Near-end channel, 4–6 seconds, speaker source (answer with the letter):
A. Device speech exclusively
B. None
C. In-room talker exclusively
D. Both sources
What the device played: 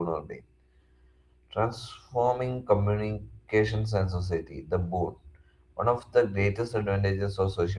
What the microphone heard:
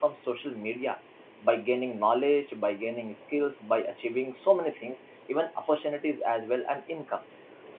C